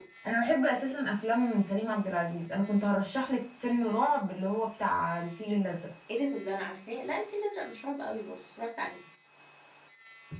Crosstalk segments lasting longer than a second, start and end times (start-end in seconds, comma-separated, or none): none